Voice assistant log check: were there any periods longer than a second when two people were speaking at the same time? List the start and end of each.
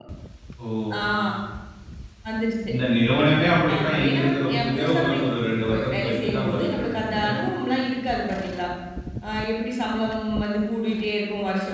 3.8-5.2, 5.7-7.3

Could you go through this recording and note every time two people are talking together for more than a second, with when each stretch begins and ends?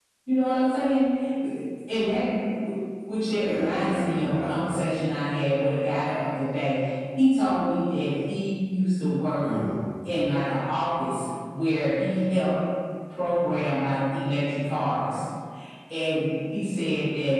3.4-4.8

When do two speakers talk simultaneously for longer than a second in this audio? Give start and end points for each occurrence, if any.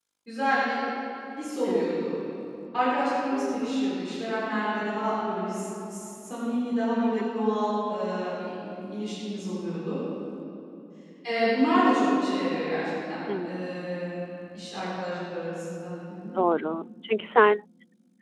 none

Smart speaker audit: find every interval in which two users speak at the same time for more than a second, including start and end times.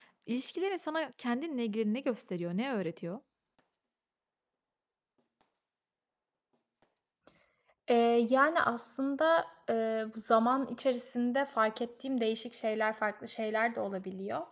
none

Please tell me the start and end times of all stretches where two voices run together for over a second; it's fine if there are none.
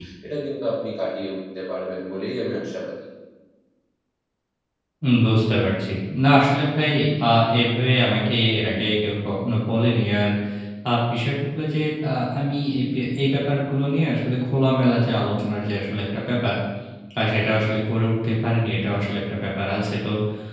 none

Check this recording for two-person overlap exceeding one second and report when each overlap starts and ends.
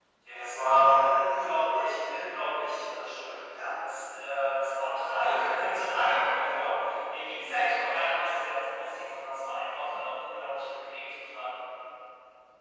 0.8-2.3

